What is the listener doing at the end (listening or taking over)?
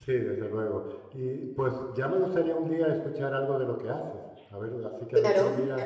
taking over